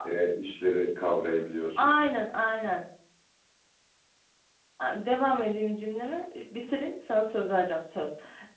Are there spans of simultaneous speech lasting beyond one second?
No

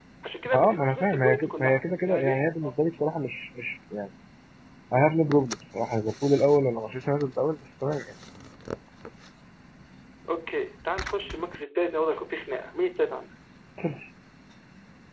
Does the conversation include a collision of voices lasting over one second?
Yes, from 0.5 s

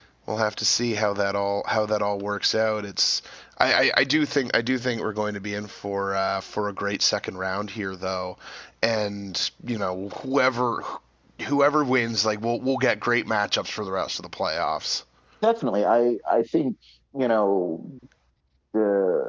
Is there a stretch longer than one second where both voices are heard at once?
No

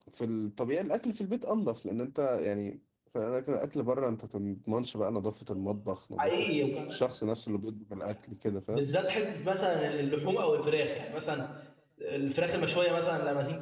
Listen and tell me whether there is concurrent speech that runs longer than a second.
No

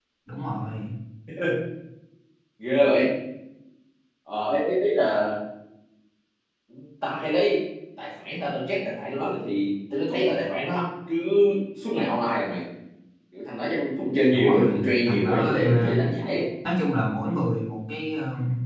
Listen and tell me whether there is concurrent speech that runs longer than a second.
Yes, from 14.2 s

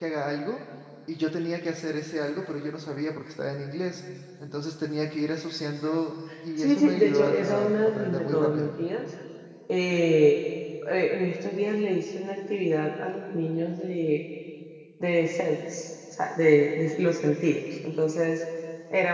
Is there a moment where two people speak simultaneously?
Yes, from 6.6 s

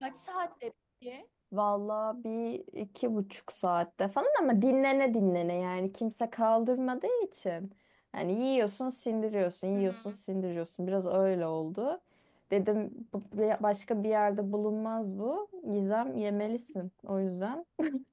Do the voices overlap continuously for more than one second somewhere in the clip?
No

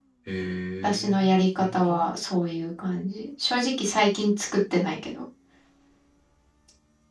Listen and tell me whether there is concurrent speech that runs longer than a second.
Yes, from 0.8 s

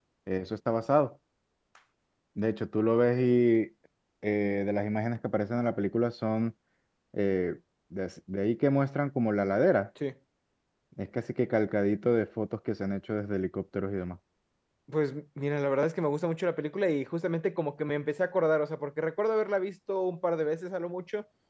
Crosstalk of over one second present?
No

